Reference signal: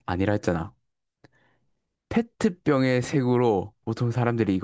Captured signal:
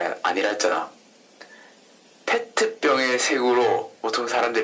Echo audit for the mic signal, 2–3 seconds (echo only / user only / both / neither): echo only